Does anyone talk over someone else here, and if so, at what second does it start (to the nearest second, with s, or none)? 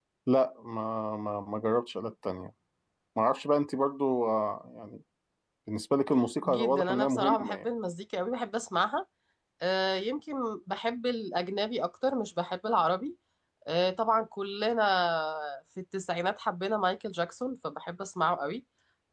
6 s